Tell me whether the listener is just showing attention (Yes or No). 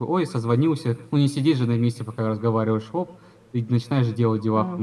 No